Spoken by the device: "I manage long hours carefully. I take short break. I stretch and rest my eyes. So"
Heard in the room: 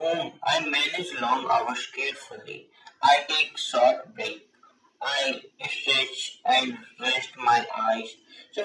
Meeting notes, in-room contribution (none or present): none